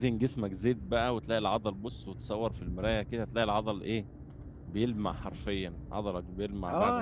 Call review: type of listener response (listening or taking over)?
taking over